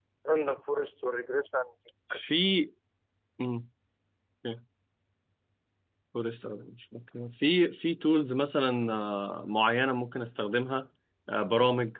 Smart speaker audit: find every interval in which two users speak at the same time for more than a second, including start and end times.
none

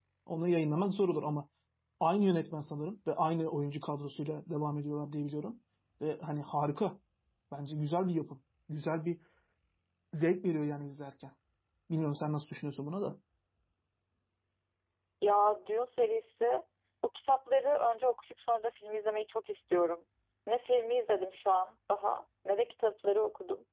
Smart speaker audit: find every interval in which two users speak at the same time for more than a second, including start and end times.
none

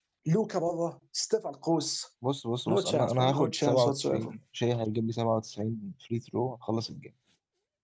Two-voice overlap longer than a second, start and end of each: 2.7-4.3

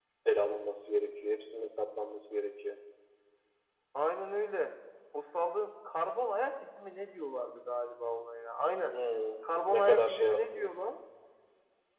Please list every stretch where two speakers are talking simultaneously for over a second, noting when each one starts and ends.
9.4-10.7

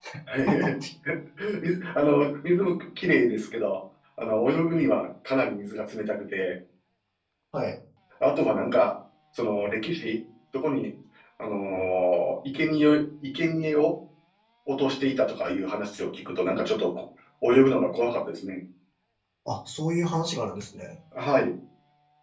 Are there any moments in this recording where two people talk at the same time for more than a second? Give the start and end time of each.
none

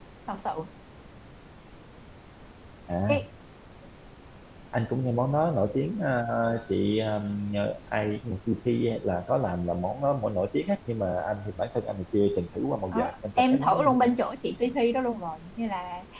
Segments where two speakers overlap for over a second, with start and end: 12.9-14.2

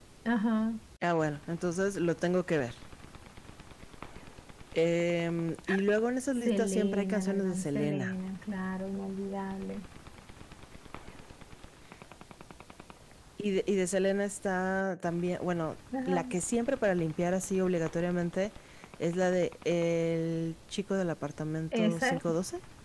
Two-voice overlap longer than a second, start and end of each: 6.3-8.2

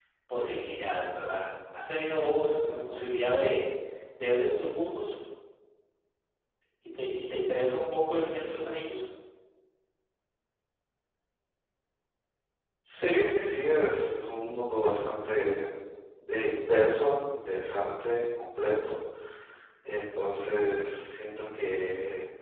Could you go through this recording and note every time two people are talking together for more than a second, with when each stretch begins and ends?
none

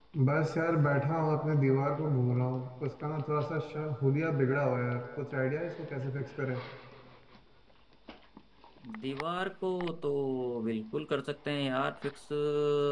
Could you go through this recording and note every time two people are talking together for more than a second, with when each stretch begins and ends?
none

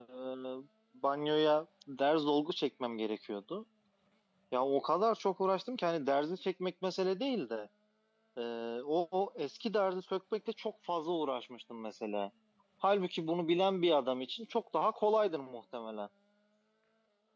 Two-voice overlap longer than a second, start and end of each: none

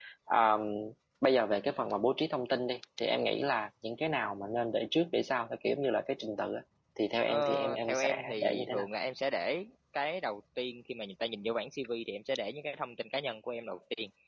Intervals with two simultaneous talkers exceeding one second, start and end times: 7.3-8.9

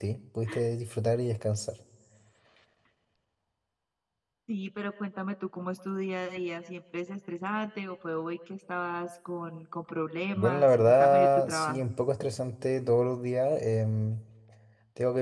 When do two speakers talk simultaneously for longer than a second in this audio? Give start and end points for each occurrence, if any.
10.3-11.8

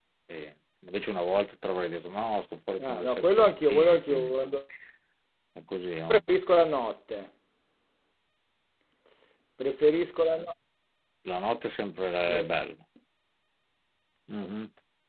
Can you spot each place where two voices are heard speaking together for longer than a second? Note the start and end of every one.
2.8-4.3

